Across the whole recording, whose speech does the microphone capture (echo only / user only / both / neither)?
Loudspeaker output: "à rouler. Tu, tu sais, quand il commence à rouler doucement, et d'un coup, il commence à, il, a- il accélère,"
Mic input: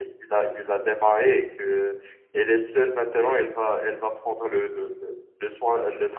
user only